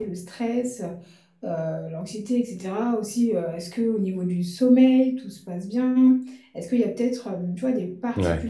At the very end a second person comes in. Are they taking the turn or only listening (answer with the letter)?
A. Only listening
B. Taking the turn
A